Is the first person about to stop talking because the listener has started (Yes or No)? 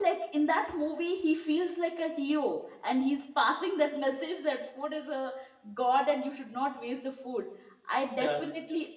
No